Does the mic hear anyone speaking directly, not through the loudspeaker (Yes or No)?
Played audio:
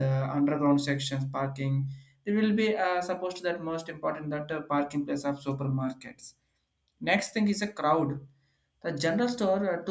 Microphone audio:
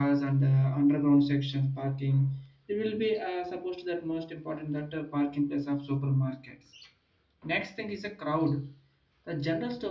No